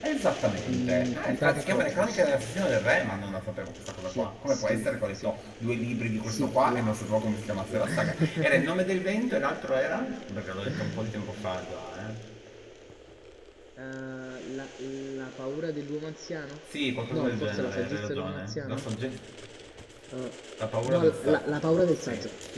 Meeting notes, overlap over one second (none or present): present